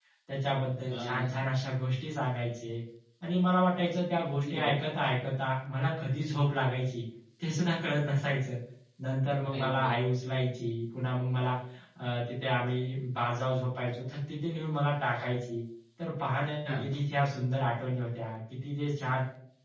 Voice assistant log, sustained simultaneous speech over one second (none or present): none